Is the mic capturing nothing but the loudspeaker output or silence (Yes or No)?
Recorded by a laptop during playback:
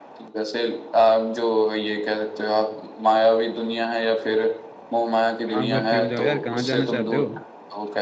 No